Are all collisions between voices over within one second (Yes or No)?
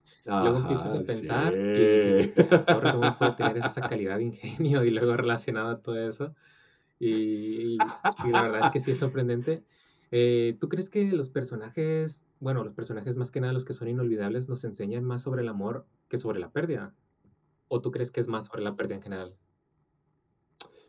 No